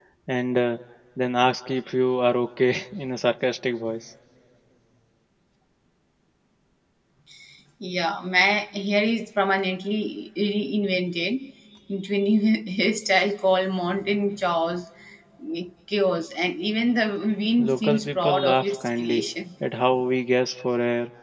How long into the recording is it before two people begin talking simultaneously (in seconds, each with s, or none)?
17.6 s